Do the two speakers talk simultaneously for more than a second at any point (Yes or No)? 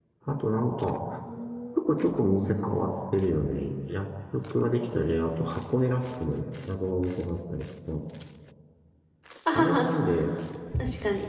No